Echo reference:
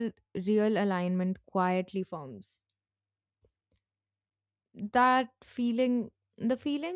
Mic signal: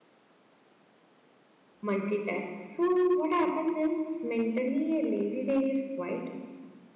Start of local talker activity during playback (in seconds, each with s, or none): 1.8 s